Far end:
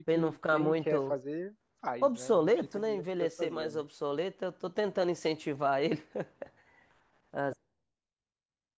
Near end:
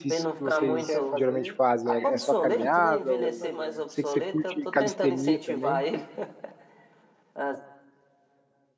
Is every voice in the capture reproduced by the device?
No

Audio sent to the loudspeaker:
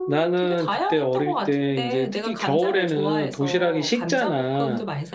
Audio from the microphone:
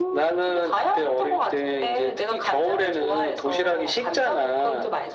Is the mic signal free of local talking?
Yes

